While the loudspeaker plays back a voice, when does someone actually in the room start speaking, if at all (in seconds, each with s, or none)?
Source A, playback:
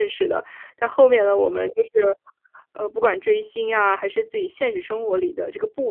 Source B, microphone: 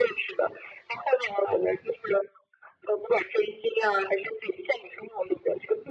none